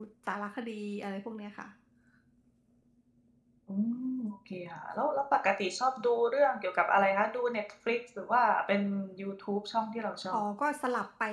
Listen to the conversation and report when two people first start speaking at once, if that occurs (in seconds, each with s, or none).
none